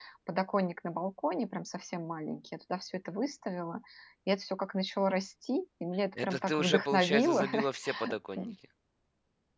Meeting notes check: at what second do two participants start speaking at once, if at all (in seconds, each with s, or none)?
6.2 s